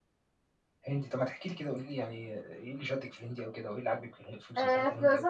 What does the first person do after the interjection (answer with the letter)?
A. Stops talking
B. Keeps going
A